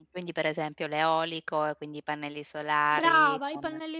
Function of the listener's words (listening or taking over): taking over